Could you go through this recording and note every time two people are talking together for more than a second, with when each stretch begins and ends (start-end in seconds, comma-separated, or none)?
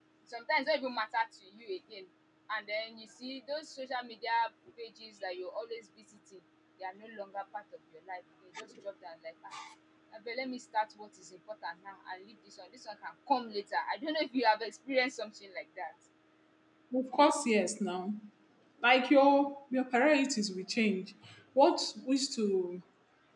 none